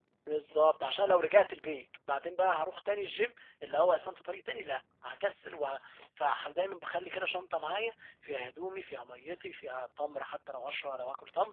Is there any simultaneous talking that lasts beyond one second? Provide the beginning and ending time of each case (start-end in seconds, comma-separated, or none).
none